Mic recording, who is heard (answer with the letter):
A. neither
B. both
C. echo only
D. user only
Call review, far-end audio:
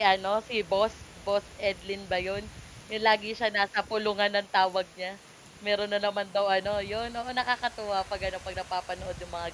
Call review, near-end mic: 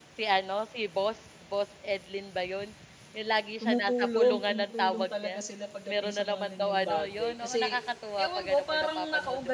B